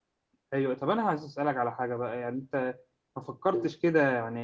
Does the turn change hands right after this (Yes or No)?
No